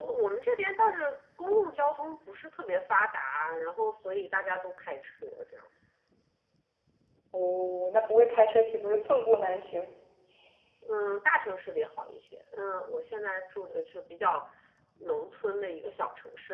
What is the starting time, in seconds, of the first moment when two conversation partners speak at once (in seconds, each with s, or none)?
none